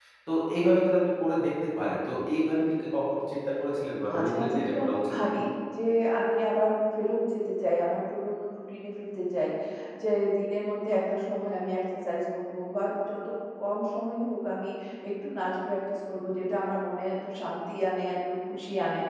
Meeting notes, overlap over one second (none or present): present